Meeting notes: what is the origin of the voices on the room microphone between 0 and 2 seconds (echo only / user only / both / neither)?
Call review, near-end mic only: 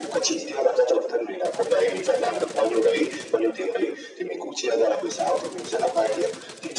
echo only